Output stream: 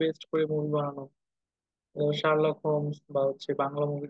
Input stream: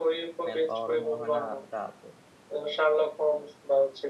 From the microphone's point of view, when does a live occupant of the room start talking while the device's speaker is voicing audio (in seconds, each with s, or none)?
0.4 s